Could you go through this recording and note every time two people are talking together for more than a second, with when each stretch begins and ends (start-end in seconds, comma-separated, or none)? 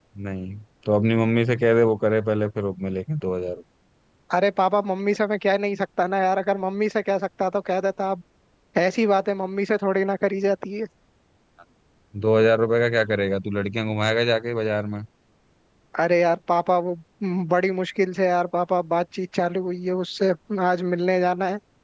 none